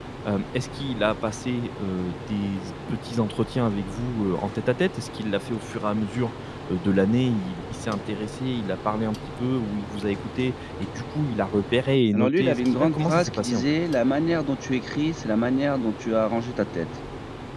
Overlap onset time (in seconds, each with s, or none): 12.1 s